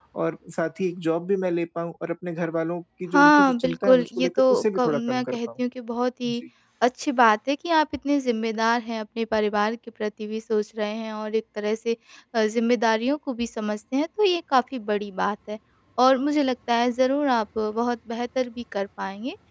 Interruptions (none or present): present